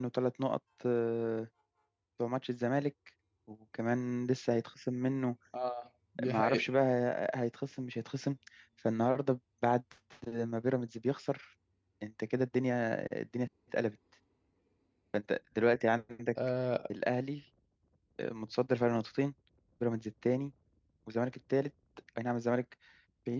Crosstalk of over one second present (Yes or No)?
No